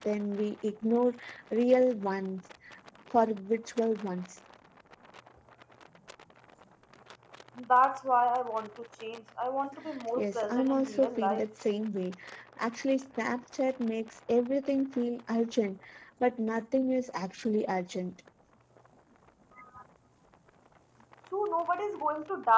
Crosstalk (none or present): present